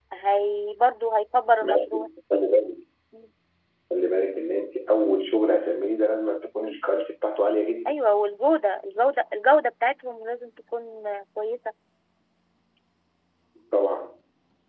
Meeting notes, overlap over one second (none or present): none